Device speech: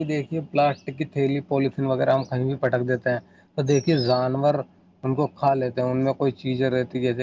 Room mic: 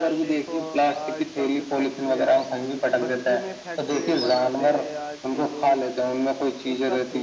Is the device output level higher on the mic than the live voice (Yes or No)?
Yes